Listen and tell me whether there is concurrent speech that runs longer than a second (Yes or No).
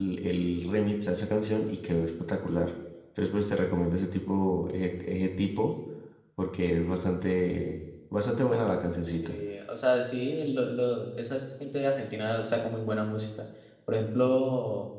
No